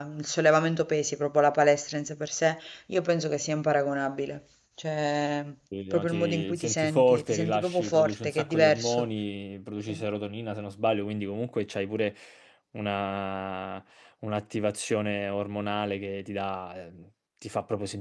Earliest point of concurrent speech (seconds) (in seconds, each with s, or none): 5.9 s